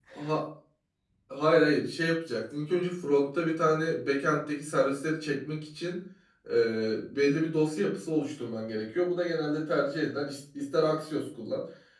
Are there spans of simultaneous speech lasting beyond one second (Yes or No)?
No